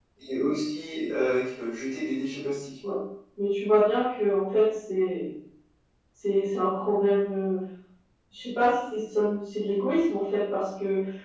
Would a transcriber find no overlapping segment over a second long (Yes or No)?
Yes